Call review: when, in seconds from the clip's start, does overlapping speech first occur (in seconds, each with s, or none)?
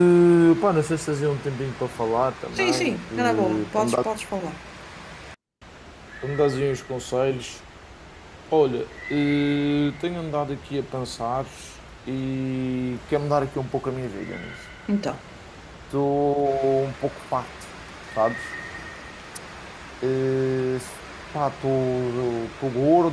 2.5 s